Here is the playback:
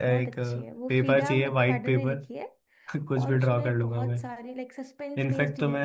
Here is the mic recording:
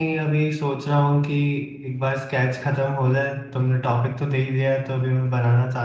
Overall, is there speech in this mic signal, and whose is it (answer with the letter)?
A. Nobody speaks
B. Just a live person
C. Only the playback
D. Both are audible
B